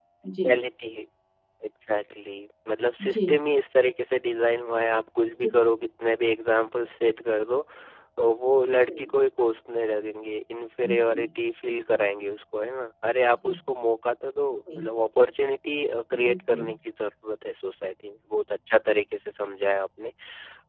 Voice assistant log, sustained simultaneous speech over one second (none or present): none